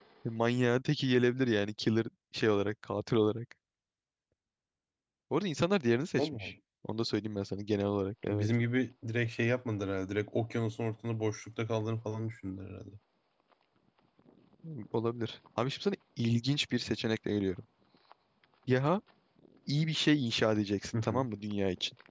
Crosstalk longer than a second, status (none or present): none